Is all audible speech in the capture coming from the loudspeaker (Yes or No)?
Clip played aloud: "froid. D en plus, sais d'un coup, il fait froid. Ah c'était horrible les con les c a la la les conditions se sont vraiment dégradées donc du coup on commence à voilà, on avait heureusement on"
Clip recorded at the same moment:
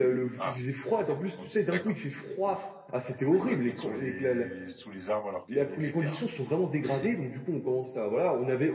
No